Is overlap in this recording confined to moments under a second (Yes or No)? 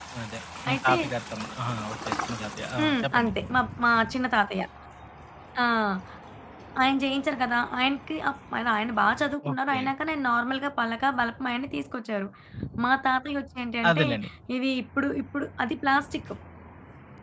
Yes